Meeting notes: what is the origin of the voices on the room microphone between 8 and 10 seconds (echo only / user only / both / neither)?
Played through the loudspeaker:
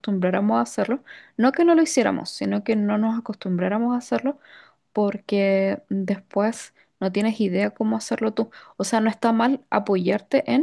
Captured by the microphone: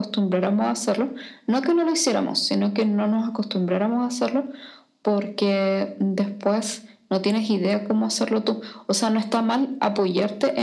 echo only